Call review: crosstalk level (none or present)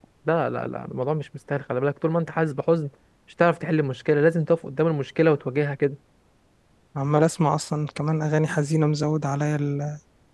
none